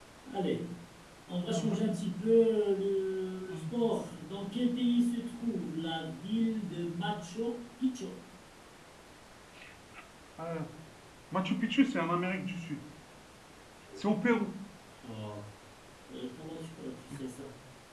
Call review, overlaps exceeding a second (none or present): none